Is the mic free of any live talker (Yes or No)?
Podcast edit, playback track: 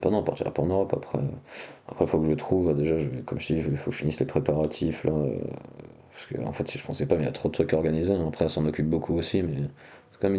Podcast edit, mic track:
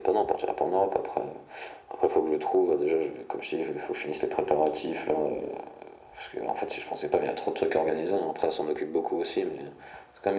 Yes